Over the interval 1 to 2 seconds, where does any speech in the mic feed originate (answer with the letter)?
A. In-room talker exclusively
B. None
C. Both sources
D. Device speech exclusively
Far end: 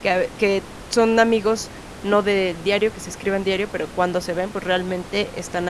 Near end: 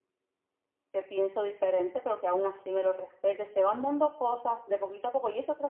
A